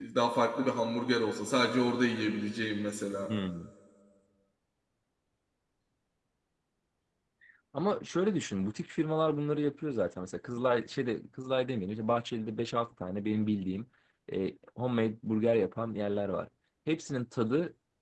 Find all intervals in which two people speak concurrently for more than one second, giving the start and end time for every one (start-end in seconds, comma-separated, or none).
none